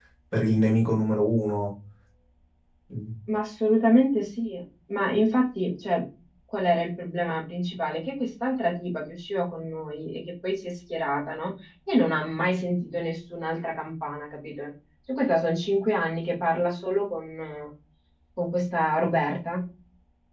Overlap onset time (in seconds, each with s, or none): none